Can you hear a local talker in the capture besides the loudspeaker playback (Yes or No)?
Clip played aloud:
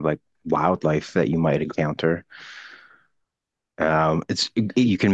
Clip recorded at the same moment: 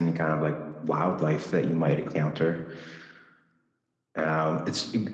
No